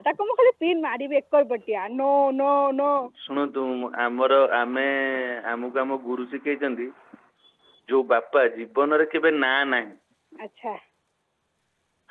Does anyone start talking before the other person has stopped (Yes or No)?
No